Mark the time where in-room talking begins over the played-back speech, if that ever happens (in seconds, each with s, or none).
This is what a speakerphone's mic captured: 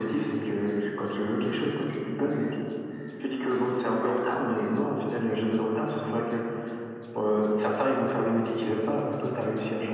none